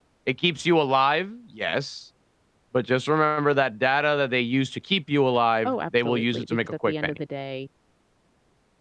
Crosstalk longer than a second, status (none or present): present